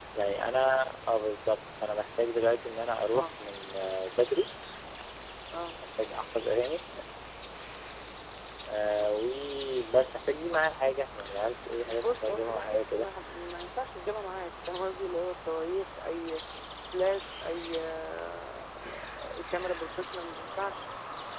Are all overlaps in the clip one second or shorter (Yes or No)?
No